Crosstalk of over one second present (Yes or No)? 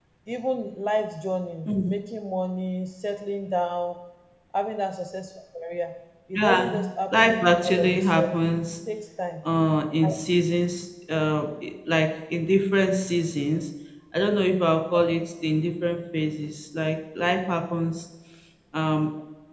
Yes